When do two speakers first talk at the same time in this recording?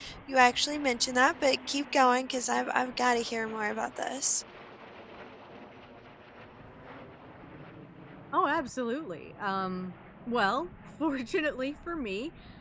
none

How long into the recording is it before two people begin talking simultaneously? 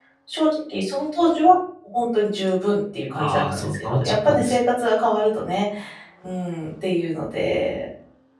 3 s

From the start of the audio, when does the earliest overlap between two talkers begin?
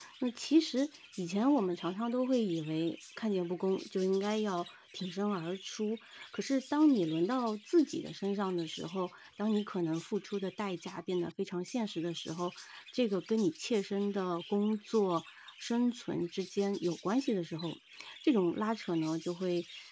none

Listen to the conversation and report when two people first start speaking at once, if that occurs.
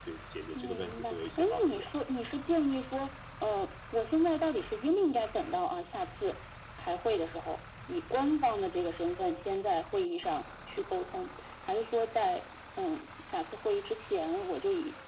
1 s

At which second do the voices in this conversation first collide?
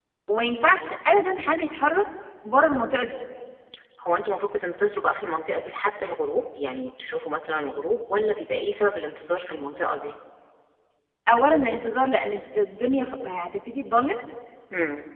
none

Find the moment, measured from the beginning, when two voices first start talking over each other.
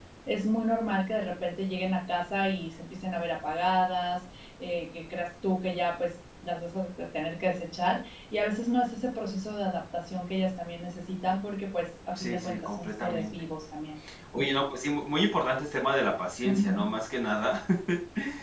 12 s

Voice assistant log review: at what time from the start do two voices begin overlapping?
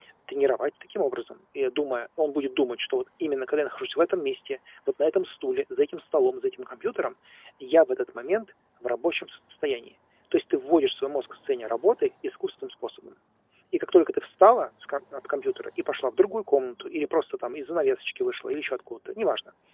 none

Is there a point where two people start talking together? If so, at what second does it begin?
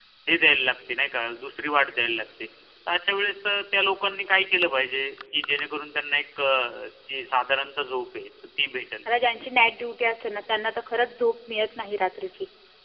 none

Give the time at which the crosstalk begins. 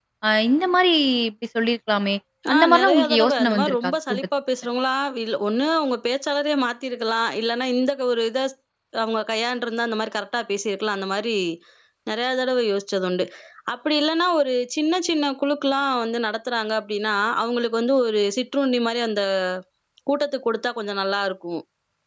3 s

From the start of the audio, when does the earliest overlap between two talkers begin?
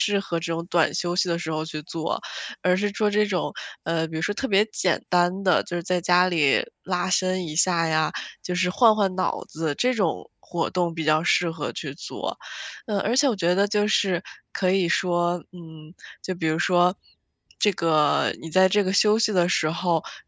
none

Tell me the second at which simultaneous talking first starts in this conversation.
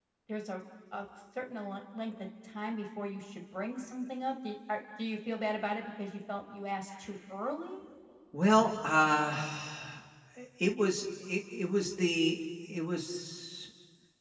none

